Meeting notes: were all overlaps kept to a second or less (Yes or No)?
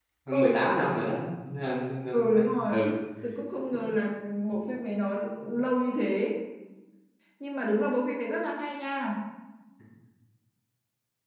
Yes